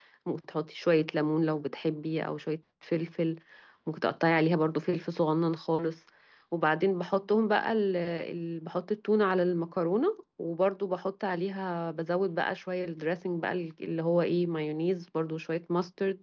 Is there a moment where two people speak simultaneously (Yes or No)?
No